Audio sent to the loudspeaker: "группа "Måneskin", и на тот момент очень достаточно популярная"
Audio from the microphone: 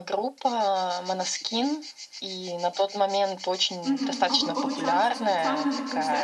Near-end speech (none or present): present